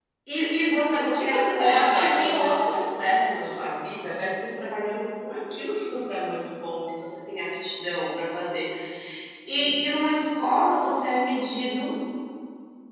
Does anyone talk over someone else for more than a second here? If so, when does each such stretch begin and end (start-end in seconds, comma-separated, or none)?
0.9-2.8